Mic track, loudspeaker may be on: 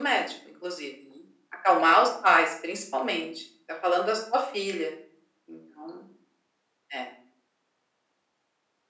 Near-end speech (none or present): none